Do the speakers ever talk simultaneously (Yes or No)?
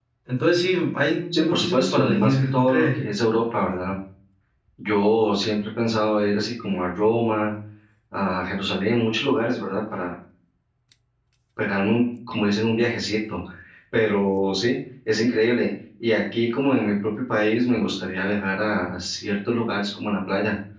Yes